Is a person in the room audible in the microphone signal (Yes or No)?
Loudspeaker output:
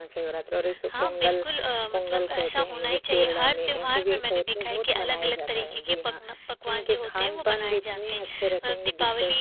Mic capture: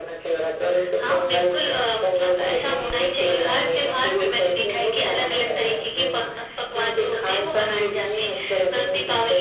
No